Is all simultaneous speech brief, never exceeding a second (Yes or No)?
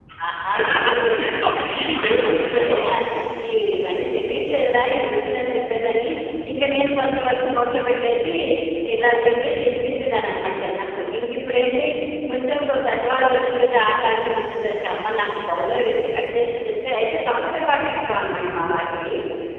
No